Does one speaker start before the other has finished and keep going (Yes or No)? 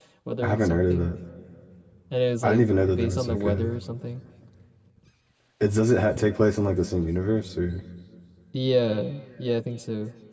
Yes